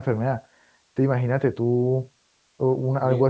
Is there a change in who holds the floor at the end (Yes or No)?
No